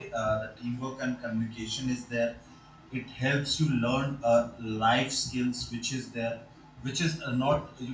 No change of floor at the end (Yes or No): Yes